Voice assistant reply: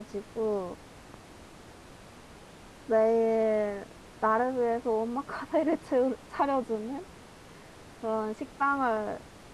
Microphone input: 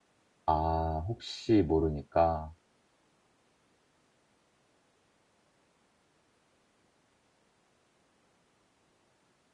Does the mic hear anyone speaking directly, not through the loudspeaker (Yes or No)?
Yes